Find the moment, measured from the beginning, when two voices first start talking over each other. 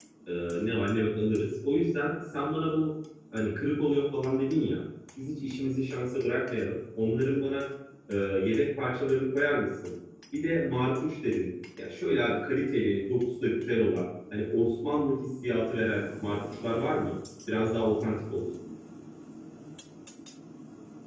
none

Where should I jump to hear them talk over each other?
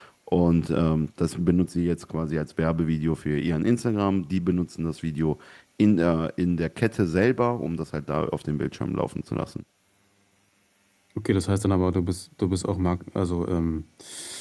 none

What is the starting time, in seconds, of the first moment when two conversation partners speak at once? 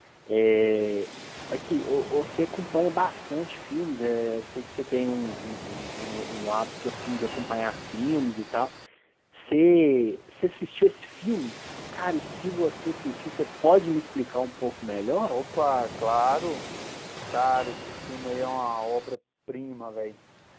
none

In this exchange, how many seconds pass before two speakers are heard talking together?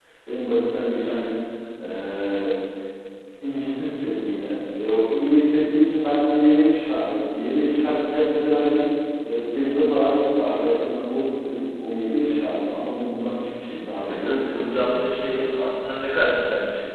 14.1 s

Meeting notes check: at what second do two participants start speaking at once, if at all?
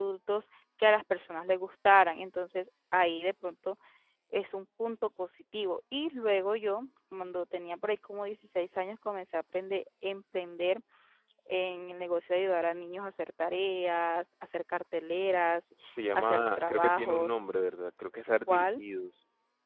16.1 s

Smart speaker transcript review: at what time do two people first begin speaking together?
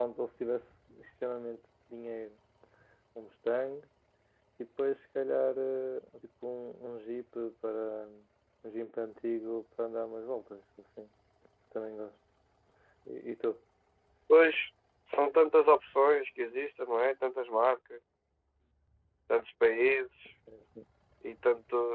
none

